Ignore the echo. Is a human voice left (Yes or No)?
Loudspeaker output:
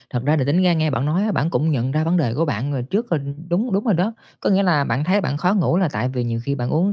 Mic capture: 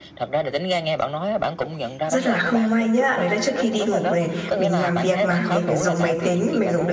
Yes